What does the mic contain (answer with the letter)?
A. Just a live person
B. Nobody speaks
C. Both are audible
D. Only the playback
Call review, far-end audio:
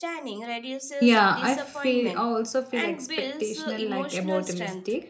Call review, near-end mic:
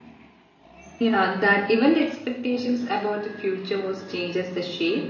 A